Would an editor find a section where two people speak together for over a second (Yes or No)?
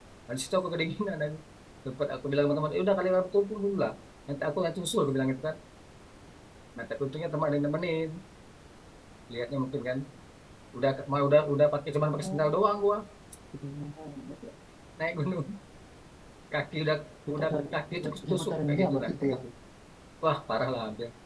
Yes